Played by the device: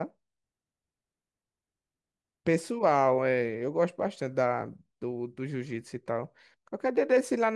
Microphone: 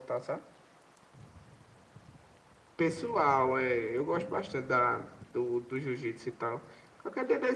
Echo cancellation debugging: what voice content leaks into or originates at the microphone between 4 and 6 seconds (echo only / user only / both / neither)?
echo only